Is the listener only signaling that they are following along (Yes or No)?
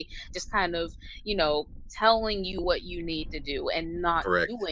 Yes